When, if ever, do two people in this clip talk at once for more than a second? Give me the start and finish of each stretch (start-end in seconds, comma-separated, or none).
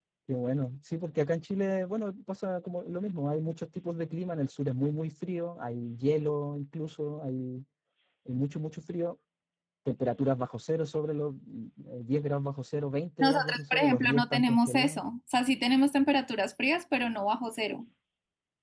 13.2-15.0